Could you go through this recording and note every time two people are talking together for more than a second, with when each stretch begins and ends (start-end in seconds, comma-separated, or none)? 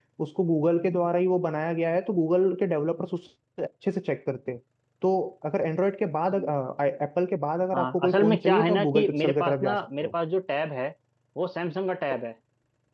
7.7-10.1